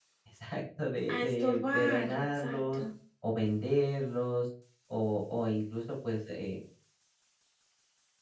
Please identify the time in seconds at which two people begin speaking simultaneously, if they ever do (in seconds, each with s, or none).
1.1 s